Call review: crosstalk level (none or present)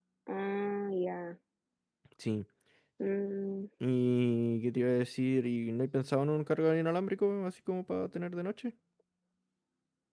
none